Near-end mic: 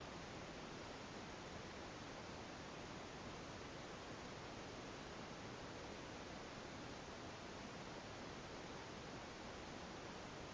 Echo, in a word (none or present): none